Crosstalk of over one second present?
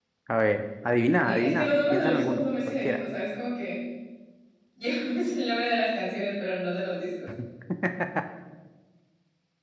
Yes, from 1.2 s

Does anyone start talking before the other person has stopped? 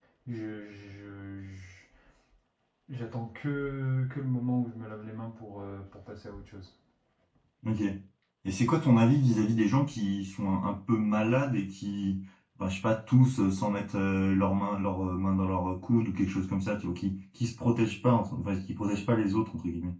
No

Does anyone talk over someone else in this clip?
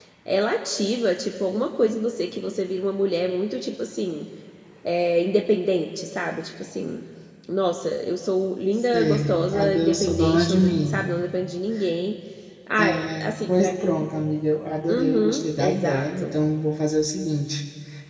Yes, from 8.9 s

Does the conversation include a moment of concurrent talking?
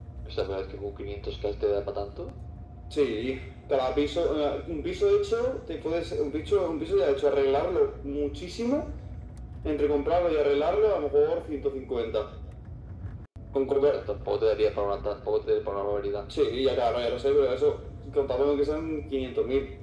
No

